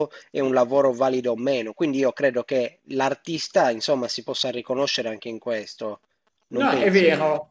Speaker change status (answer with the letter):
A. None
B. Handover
B